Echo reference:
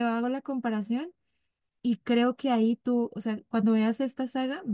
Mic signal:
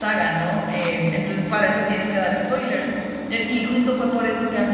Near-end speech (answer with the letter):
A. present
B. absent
A